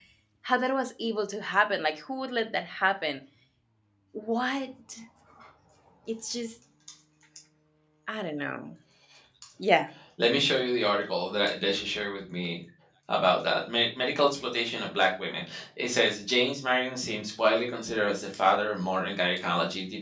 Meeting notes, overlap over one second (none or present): none